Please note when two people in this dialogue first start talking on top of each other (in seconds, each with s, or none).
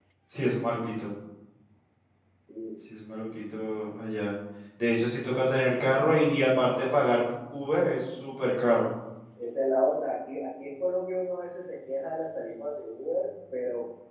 none